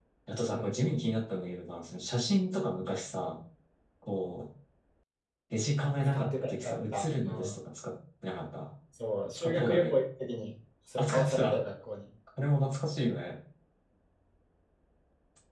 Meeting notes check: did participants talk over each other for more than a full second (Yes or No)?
Yes